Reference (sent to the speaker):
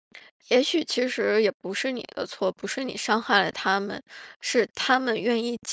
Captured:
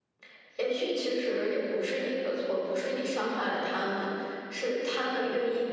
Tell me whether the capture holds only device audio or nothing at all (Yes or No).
Yes